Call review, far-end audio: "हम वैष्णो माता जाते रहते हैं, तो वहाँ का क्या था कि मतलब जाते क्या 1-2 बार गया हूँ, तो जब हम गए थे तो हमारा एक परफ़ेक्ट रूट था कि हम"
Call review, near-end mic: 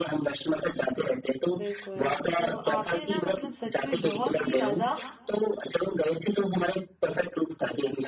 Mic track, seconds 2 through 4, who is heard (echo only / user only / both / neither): both